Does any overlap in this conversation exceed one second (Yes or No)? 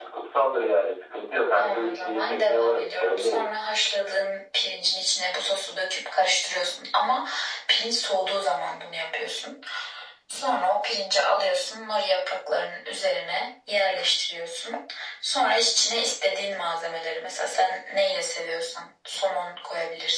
Yes